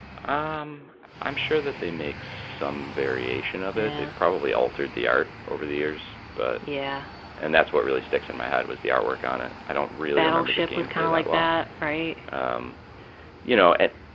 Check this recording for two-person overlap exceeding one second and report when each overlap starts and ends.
10.2-11.5

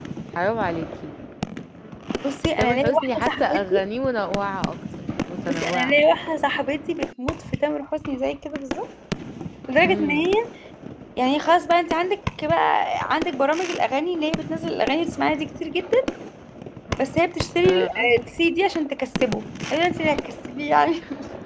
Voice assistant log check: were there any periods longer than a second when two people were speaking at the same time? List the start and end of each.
2.6-3.9

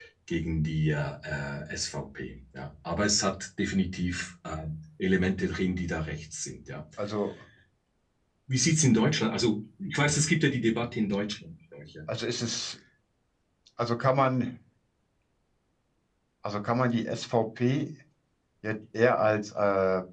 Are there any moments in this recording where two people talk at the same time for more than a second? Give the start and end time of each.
none

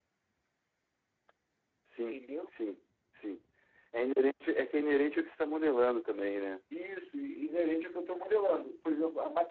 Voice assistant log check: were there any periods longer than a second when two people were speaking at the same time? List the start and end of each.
none

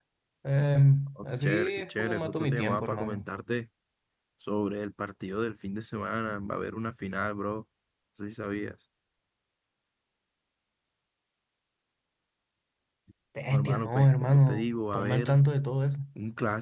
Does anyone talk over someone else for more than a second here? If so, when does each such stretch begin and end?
1.2-3.2, 13.5-15.3

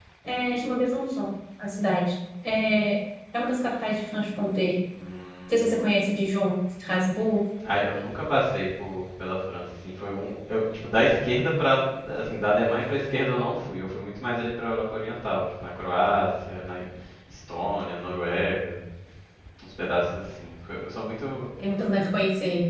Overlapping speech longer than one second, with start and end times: none

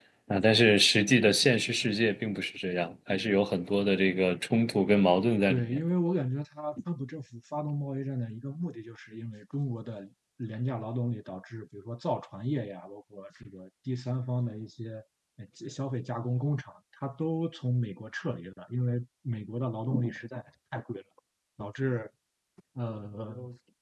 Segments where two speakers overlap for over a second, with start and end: none

